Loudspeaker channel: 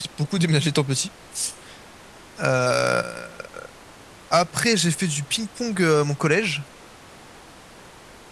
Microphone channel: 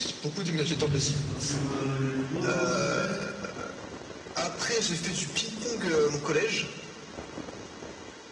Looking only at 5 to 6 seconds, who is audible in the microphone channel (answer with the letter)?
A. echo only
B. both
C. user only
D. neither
A